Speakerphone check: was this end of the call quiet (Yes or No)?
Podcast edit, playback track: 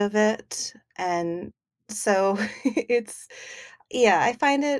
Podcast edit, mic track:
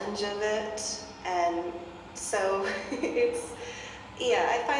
Yes